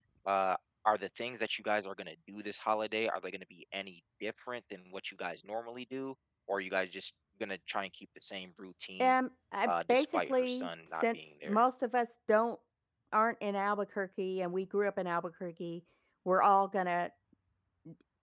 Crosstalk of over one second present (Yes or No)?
Yes